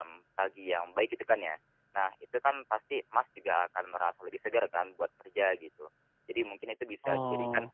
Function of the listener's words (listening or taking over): listening